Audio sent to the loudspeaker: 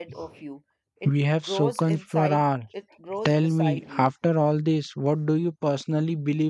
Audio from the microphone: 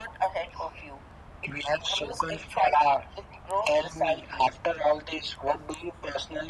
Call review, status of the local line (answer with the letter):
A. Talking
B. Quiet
B